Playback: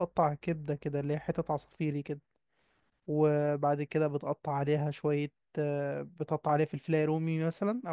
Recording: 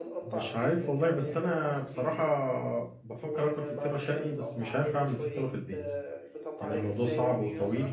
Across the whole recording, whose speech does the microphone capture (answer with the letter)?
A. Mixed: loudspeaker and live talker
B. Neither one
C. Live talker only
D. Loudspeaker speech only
A